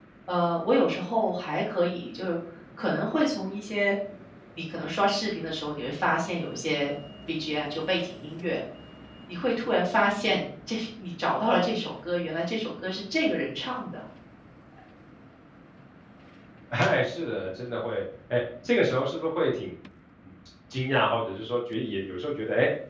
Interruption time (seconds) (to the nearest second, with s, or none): none